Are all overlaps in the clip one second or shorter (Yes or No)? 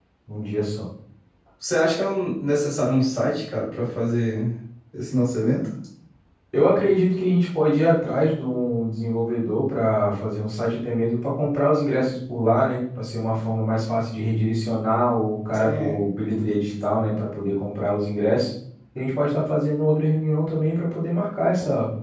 Yes